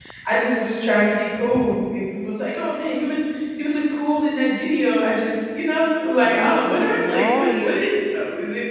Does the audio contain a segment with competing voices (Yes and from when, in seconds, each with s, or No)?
Yes, from 6.2 s